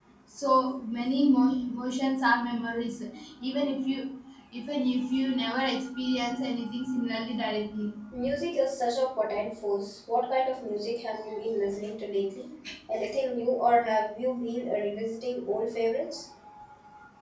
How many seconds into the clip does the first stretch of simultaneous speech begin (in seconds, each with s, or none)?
none